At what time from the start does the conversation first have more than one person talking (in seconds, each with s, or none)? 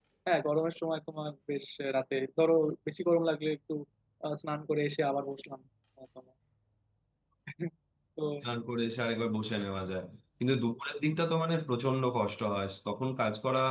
none